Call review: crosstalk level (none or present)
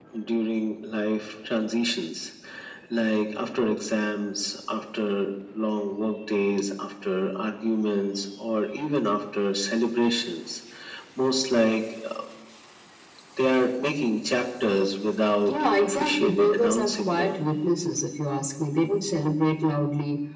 present